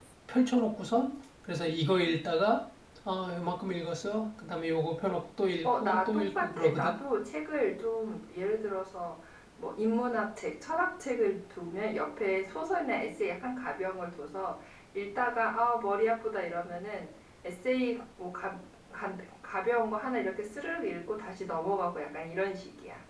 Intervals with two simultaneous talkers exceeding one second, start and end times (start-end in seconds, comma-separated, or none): 5.6-7.0